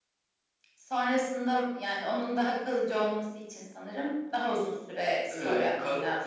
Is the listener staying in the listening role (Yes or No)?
No